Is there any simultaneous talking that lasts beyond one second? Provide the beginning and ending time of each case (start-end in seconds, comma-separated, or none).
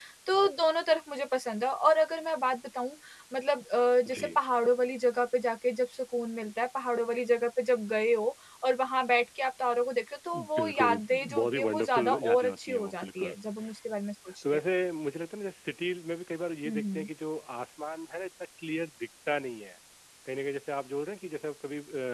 10.6-13.4